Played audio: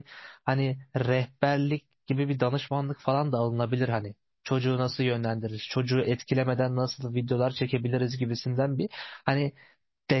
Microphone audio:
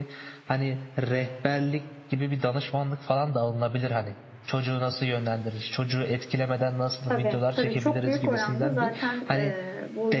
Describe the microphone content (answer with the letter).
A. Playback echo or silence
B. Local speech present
B